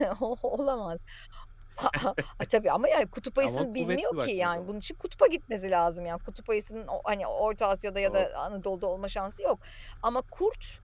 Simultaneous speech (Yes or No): Yes